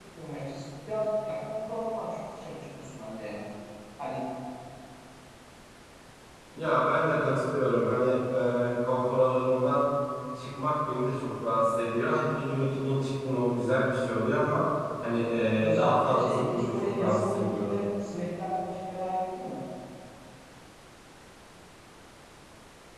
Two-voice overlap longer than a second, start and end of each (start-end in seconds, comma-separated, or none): 15.6-17.7